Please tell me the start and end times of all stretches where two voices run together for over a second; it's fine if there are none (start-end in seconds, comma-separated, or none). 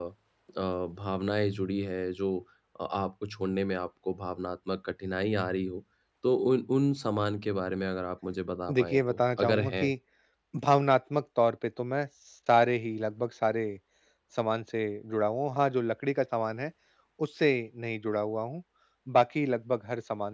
8.7-9.9